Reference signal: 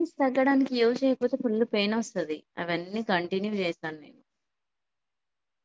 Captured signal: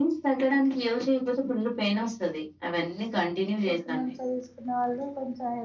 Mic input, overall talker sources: both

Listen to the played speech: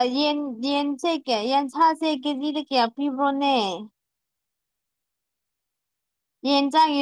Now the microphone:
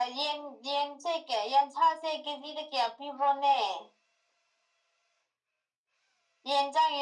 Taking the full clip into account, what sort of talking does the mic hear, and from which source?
echo only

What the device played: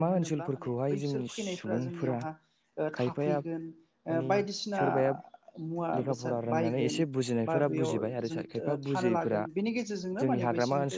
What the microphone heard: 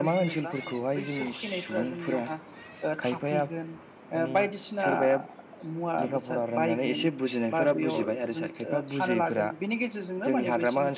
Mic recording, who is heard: echo only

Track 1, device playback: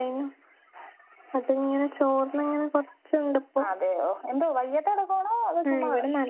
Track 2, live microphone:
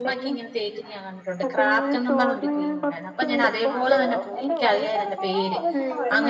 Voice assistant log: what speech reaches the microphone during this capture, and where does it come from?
both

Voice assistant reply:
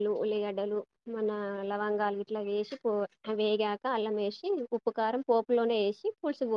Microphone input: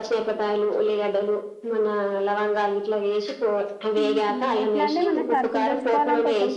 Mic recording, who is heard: both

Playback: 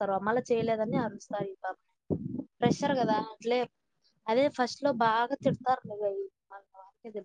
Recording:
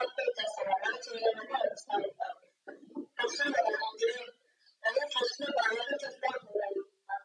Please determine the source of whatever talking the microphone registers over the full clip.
echo only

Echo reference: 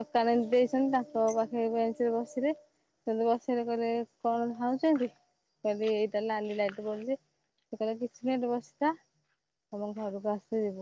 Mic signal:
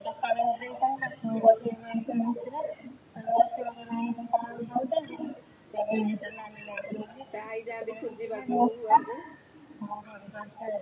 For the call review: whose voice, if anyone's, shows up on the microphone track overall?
both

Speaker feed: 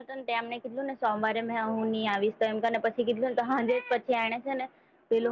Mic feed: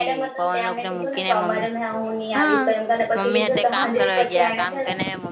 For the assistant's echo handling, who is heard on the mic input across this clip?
both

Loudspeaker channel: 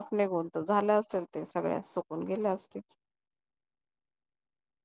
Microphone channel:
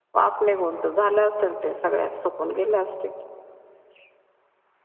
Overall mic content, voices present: echo only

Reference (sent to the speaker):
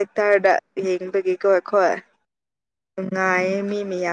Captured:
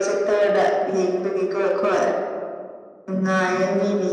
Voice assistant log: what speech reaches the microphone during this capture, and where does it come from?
echo only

